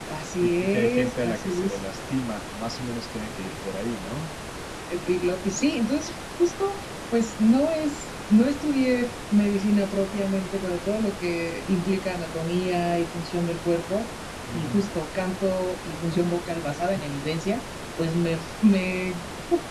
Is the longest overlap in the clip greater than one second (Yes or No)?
Yes